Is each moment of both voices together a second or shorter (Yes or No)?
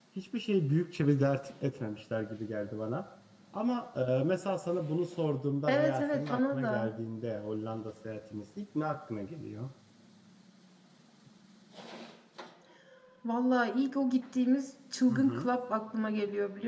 No